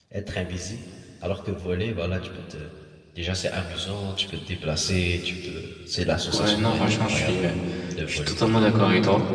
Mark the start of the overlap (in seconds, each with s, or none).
6.3 s